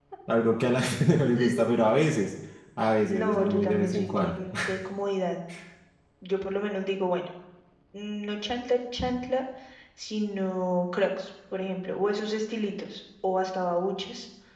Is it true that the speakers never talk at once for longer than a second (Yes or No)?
No